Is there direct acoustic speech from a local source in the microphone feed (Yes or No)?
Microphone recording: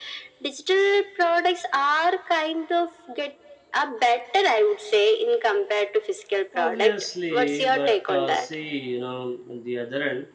Yes